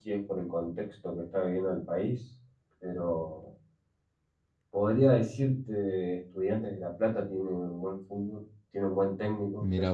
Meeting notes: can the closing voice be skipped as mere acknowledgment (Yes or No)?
Yes